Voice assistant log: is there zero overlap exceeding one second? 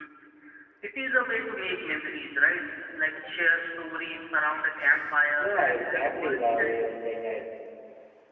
No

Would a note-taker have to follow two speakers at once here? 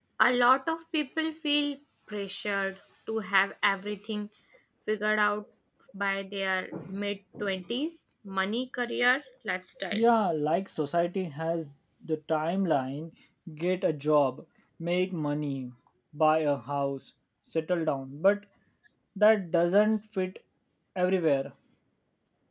No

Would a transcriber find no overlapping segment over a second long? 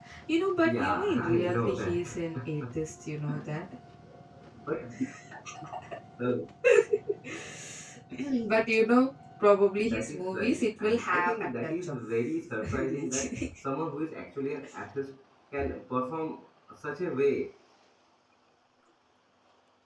No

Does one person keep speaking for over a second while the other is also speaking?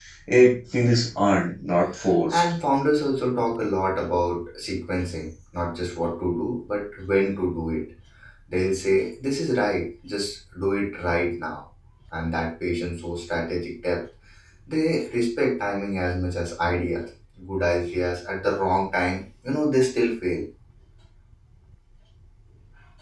No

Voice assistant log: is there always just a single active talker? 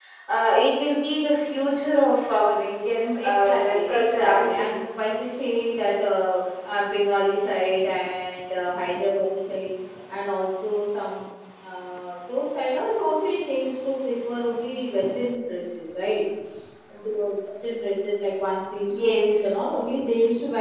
No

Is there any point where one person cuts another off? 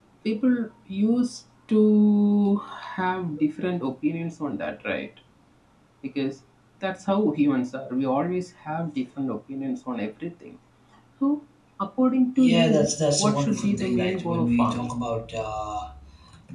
Yes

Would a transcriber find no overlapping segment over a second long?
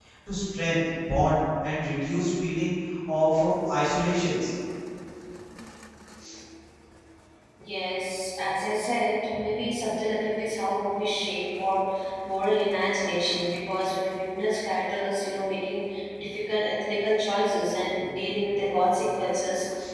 Yes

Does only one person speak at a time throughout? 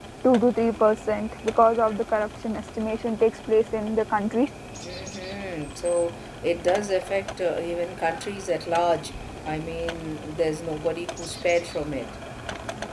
Yes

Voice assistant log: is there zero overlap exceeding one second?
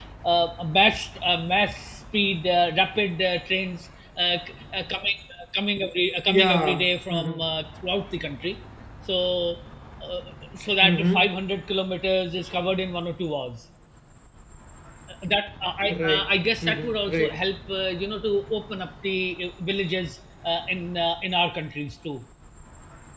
No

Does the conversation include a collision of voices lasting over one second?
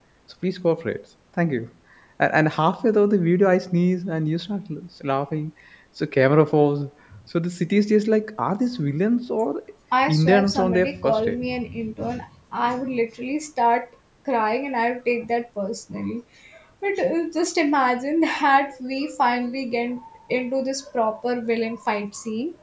Yes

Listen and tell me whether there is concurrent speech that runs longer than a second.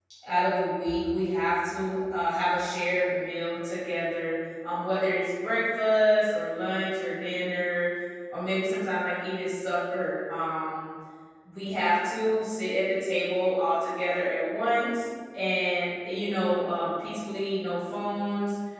No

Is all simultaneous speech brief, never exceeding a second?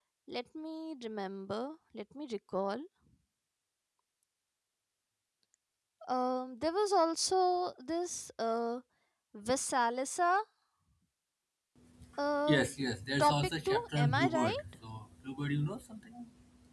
No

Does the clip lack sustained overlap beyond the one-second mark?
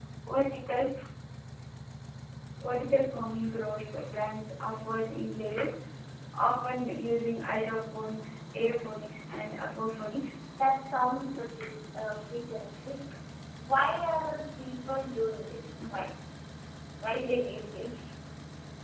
Yes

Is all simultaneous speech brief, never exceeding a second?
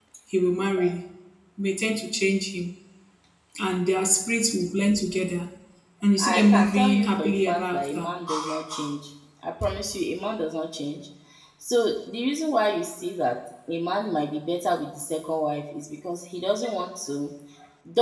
No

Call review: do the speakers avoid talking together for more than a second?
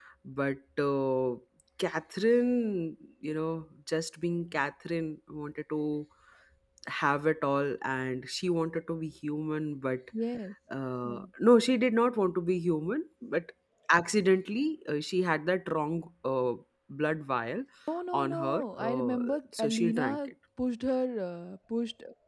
No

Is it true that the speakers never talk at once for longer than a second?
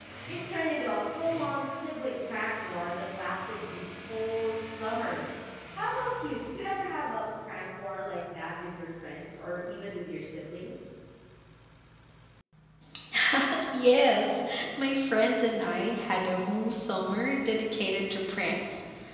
Yes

